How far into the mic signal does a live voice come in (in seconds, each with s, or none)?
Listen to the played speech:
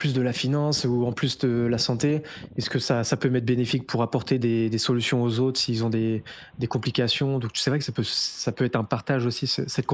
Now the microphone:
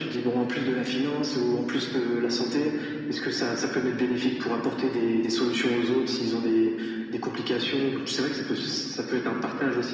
none